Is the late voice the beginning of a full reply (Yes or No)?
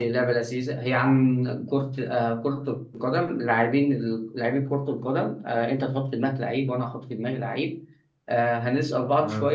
No